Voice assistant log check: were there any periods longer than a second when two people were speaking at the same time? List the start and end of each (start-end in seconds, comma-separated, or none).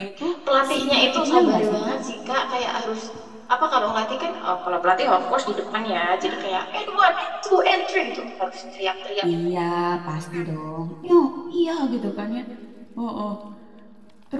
0.7-2.0